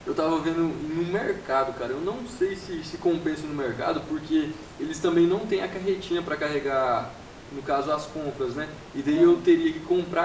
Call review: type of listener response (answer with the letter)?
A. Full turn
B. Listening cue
B